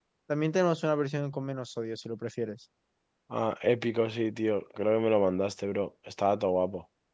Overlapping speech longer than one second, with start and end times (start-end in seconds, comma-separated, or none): none